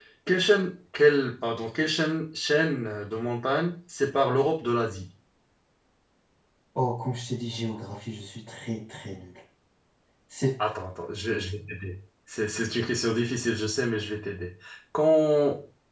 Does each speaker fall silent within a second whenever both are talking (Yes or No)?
Yes